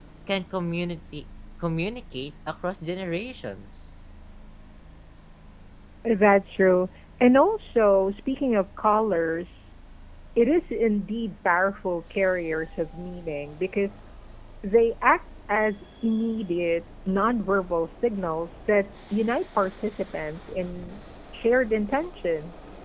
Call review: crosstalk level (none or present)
none